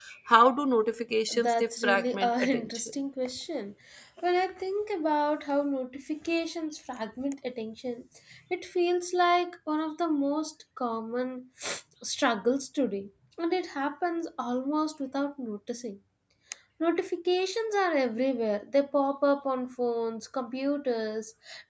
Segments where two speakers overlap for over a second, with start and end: 1.3-2.8

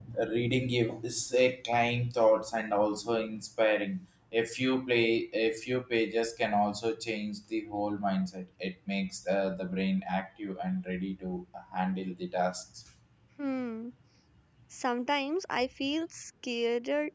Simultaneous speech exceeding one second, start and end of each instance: none

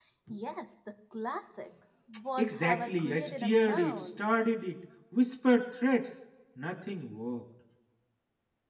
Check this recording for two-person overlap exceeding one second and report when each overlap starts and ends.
2.4-4.2

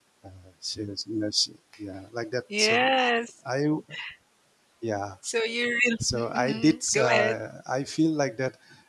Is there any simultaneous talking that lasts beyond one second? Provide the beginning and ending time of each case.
6.1-7.4

